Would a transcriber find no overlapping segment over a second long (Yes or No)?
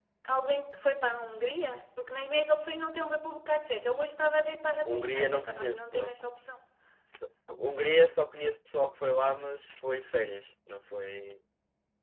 No